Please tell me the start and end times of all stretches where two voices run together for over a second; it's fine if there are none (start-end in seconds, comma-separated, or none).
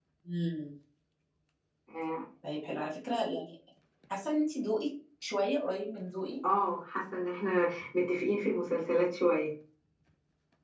none